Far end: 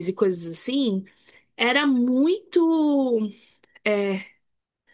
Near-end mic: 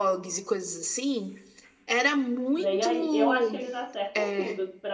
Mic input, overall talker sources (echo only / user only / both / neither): both